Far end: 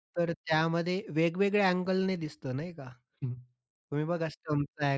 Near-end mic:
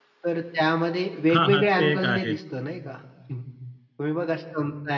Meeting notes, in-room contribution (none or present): present